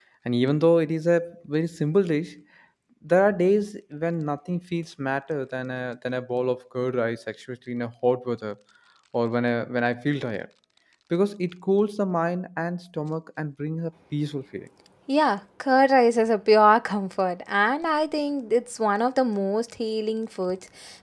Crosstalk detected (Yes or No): No